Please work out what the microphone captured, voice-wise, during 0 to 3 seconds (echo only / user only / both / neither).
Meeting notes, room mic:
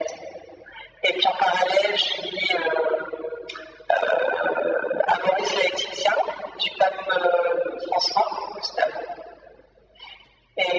echo only